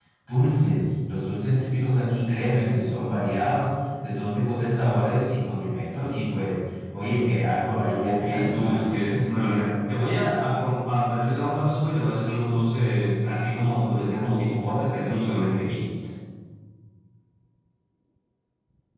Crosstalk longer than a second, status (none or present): present